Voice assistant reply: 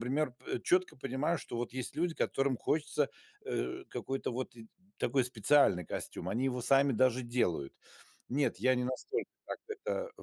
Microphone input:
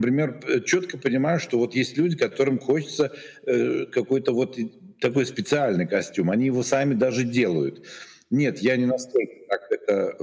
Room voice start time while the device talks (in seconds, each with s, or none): none